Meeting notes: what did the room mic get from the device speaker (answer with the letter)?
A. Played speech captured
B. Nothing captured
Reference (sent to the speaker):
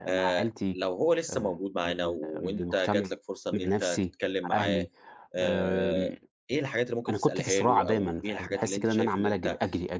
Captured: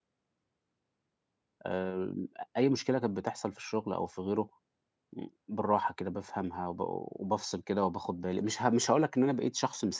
B